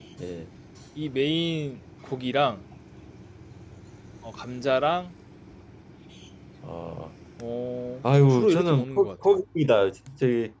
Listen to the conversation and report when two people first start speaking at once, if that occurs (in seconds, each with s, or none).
8.0 s